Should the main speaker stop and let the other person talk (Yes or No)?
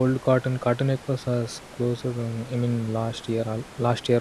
No